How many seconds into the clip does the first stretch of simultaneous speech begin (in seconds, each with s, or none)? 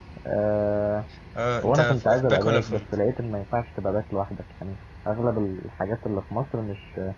1.6 s